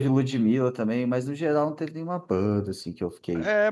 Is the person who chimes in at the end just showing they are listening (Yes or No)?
No